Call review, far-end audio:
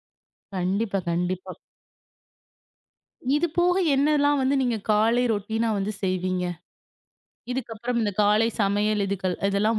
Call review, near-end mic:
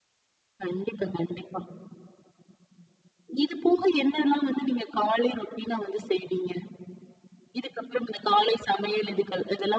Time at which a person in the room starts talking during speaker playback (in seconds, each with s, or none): none